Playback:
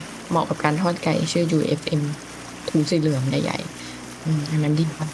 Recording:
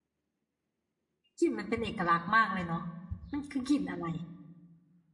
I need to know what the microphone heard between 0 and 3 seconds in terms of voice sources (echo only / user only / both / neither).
user only